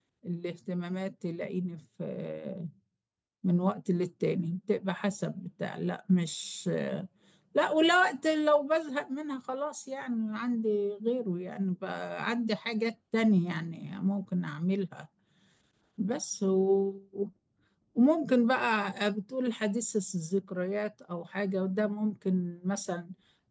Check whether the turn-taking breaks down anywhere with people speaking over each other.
No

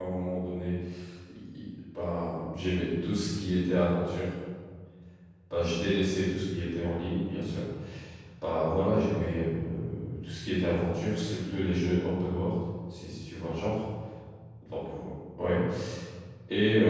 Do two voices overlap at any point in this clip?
No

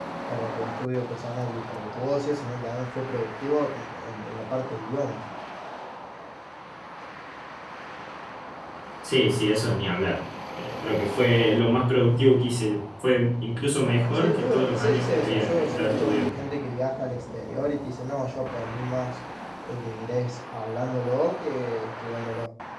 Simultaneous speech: Yes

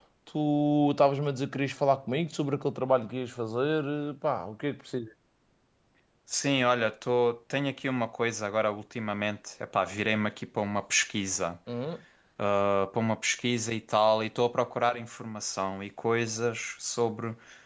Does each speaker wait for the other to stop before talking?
Yes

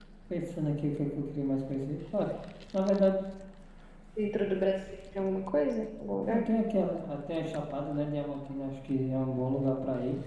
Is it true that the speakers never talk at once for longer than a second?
Yes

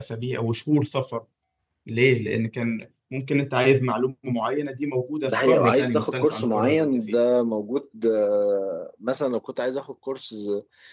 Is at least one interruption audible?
Yes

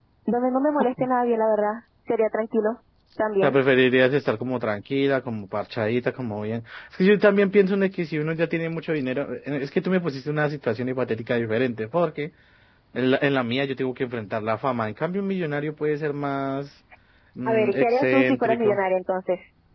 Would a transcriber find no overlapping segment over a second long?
No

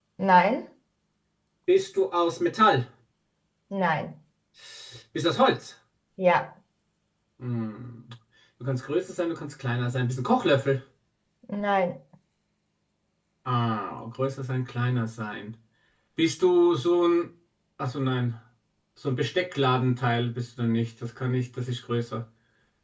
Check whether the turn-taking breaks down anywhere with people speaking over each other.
No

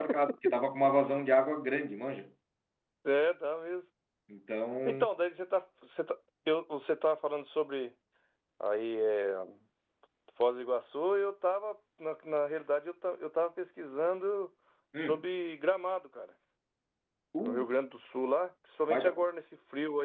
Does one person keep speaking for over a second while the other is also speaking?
No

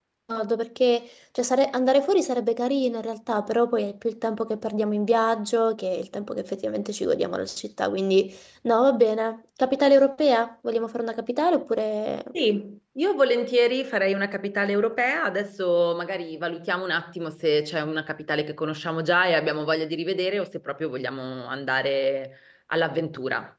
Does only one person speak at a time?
Yes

